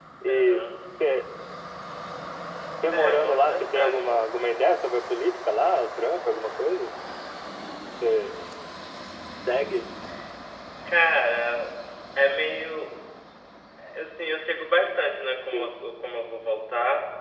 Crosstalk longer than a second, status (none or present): present